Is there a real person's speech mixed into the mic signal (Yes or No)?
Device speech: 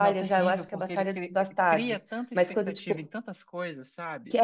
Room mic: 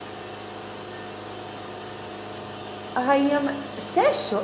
Yes